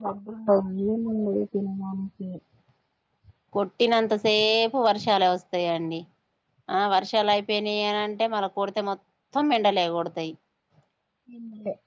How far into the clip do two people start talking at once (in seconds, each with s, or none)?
none